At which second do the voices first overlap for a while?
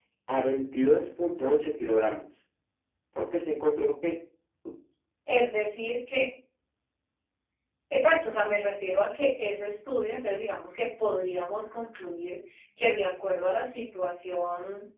none

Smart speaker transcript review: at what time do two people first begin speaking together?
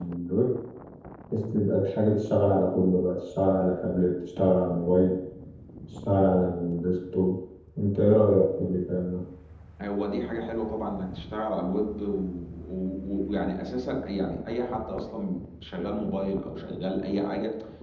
none

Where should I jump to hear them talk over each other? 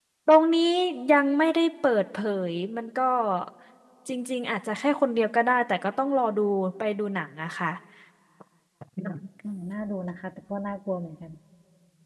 none

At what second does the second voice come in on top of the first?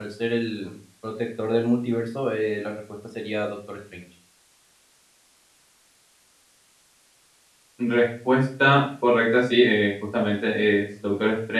none

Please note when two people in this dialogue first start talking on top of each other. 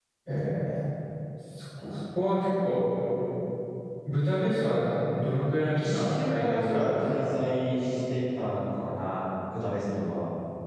6 s

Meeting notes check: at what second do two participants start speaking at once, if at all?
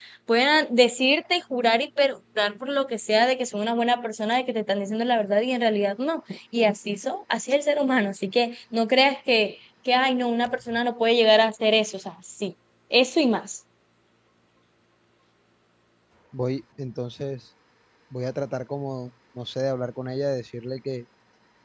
none

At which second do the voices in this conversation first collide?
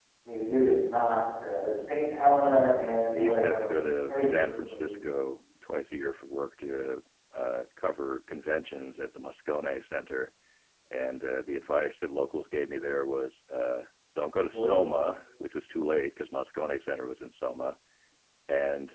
3 s

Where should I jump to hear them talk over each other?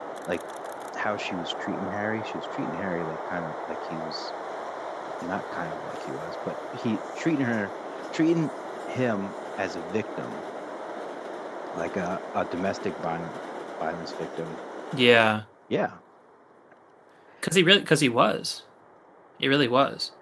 none

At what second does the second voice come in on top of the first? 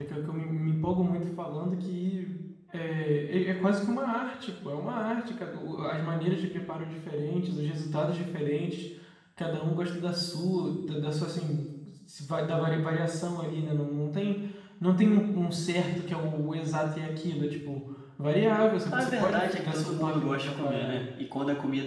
19 s

